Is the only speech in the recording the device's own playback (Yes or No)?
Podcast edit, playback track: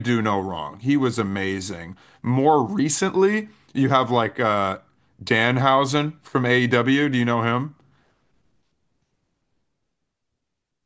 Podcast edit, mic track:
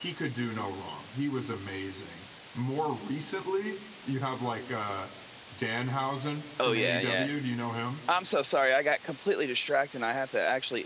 No